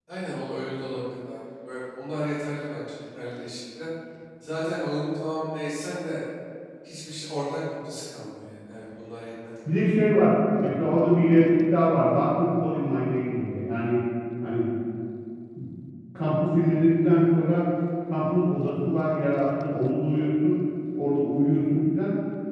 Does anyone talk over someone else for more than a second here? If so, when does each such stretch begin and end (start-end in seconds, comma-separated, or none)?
none